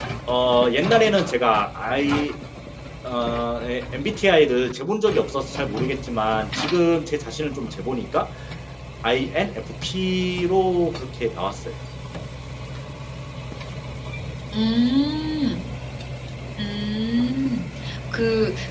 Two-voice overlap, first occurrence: none

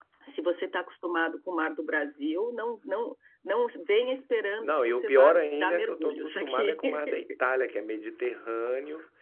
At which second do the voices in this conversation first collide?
5 s

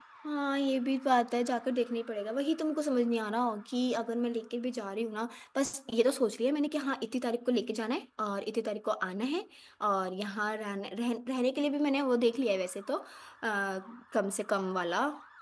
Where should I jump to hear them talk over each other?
none

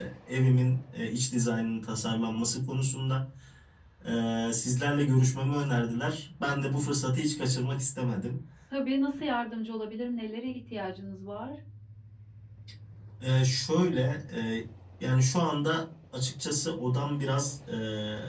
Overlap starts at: none

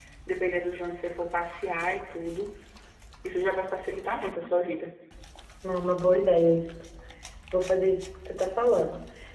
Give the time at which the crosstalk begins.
none

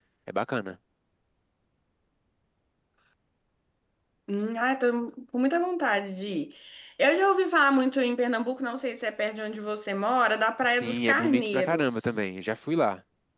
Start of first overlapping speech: 11 s

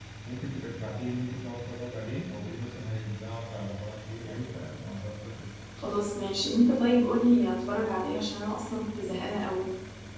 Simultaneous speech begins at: none

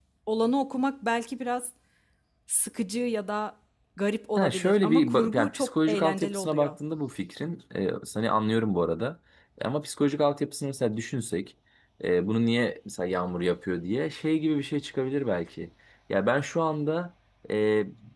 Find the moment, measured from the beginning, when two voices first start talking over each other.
4 s

